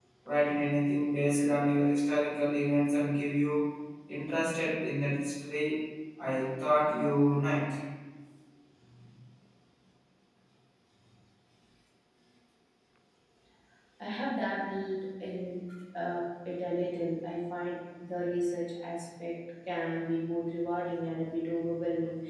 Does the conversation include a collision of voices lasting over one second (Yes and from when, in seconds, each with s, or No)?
No